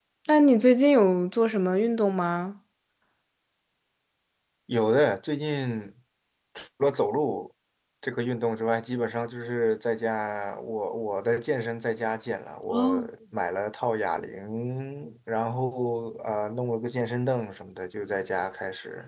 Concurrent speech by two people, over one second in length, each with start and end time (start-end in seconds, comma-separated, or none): none